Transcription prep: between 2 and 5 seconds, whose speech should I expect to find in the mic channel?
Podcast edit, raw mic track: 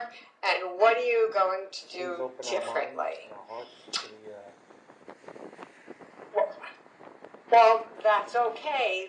both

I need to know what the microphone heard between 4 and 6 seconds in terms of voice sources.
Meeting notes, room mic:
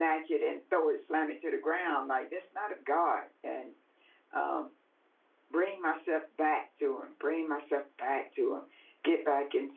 user only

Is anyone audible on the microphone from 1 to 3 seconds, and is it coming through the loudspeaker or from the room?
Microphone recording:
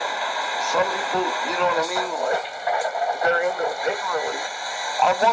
echo only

